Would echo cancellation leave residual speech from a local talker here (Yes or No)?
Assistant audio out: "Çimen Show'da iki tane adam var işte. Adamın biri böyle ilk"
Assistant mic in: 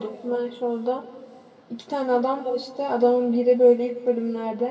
No